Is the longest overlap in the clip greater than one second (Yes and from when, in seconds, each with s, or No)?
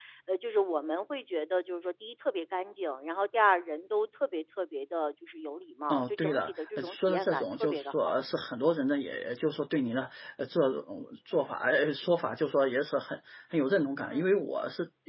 Yes, from 5.9 s